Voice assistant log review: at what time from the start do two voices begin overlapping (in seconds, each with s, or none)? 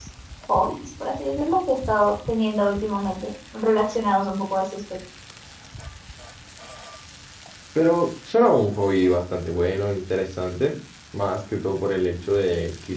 none